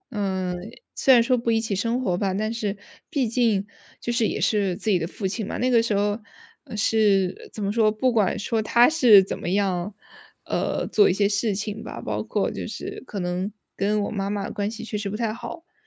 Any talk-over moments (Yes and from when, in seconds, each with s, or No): No